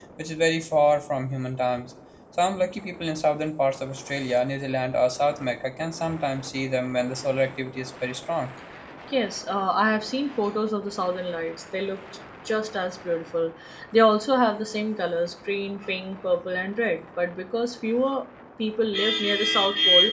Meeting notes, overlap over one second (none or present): none